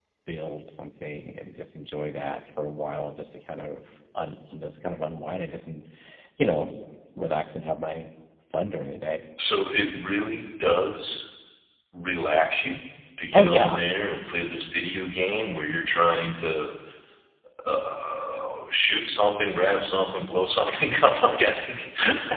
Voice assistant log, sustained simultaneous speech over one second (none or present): none